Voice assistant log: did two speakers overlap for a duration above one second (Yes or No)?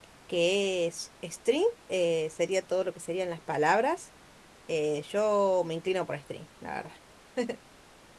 No